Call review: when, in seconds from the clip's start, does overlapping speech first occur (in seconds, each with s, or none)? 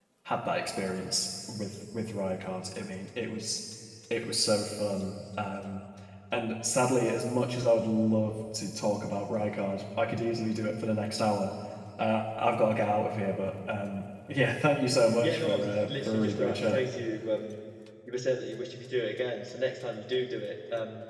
15.2 s